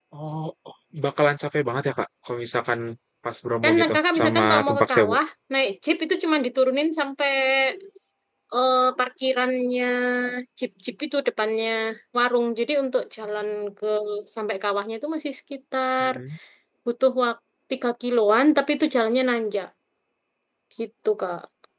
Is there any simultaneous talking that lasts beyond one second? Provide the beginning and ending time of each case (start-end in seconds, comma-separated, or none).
3.6-5.2